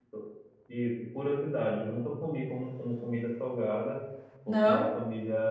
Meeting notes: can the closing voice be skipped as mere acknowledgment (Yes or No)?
Yes